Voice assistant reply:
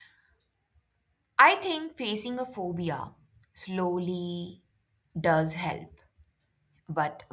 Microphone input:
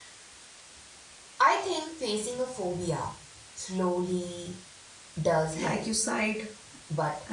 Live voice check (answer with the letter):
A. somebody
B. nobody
A